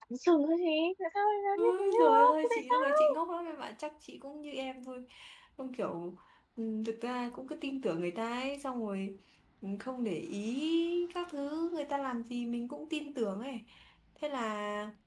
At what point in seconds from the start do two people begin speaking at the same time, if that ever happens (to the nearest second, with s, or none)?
2 s